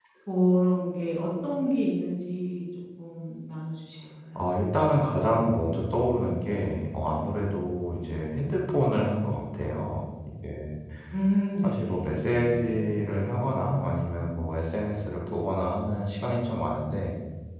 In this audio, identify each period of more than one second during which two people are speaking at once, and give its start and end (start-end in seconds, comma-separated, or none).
11.6-13.1